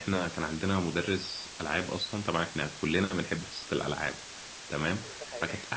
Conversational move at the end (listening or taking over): listening